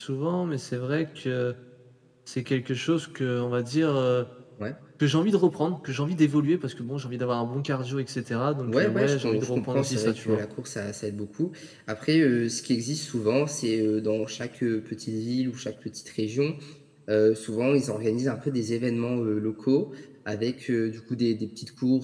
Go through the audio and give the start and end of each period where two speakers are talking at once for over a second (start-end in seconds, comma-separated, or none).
8.7-10.4